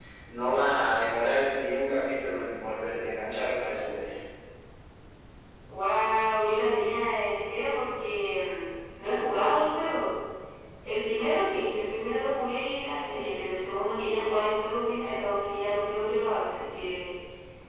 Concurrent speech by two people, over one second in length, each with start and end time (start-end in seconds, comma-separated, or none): none